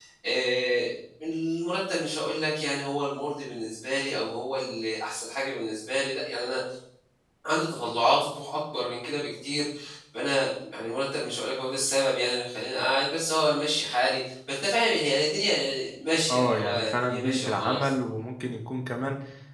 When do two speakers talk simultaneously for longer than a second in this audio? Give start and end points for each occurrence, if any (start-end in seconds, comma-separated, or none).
16.3-17.9